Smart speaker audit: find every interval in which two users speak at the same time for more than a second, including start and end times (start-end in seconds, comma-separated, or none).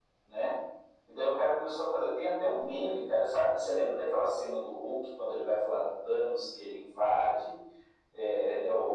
none